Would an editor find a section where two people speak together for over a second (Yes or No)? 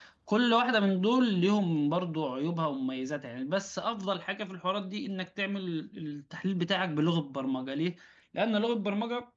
No